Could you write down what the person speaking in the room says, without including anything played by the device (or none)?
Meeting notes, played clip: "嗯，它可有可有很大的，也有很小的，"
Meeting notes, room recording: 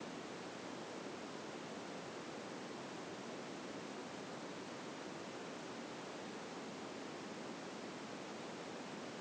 none